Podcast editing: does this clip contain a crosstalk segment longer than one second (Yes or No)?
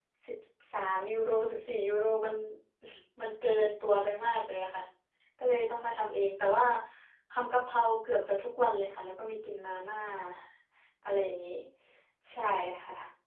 No